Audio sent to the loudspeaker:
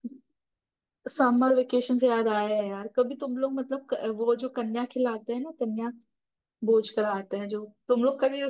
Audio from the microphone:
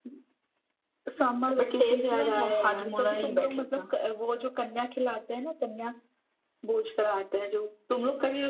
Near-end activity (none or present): present